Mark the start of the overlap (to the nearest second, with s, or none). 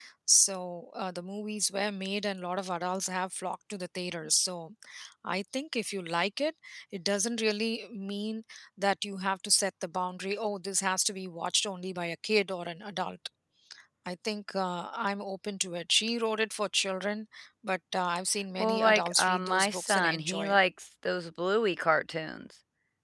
19 s